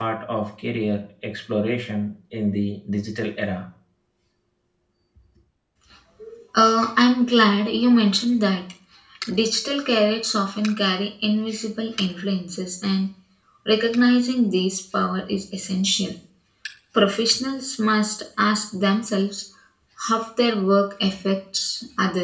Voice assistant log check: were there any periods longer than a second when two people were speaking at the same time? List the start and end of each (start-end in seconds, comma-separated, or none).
none